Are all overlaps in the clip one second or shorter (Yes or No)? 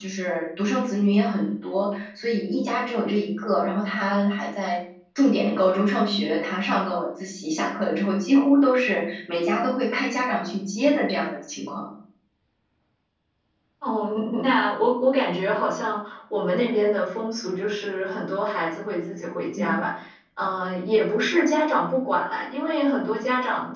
Yes